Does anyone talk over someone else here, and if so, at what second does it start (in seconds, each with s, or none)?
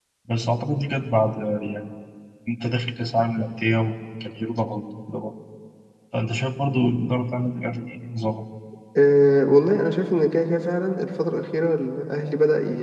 none